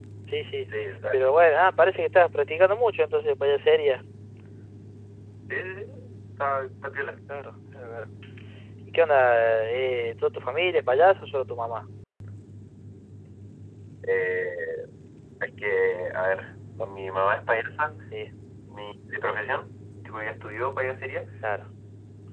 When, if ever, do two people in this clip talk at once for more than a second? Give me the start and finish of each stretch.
none

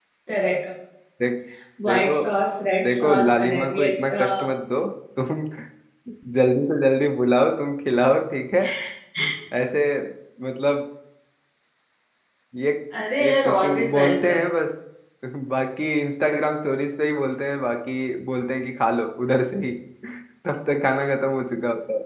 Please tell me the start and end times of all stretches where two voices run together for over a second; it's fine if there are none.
2.8-4.2, 13.2-14.4

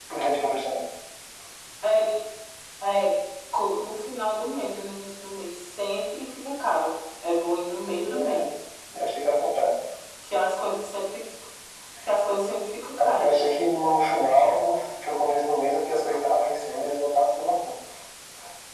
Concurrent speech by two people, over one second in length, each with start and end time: none

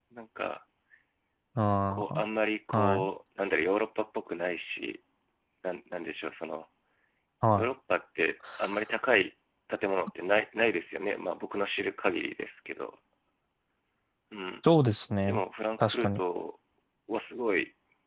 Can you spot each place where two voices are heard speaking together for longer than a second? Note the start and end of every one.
none

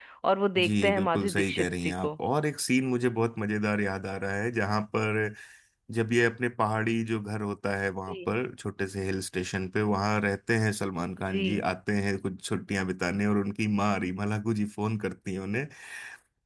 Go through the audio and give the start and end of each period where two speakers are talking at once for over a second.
0.6-2.1

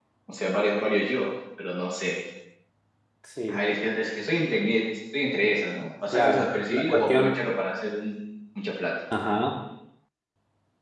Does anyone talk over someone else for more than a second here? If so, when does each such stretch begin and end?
6.1-7.3

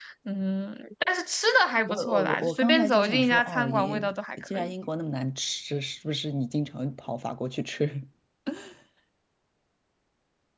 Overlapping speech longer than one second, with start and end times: 1.9-4.0

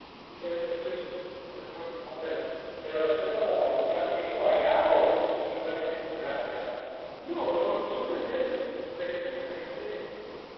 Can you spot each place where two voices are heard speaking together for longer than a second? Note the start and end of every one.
none

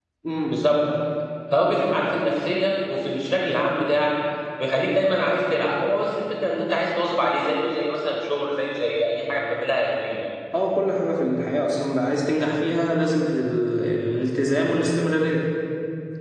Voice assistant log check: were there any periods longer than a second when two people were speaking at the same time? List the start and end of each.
none

